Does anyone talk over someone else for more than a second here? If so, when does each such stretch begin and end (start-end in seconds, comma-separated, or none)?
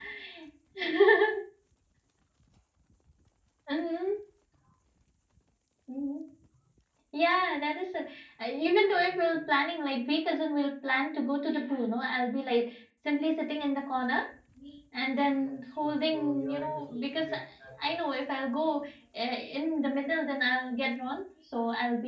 15.4-17.4